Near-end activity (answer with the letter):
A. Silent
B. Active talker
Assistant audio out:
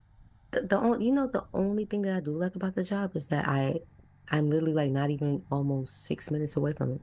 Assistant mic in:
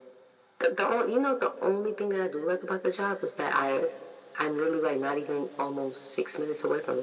A